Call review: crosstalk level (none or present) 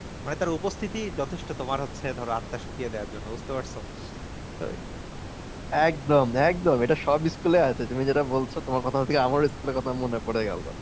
none